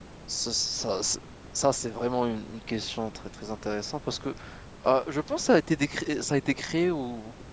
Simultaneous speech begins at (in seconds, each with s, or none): none